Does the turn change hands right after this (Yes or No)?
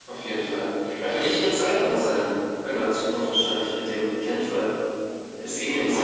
No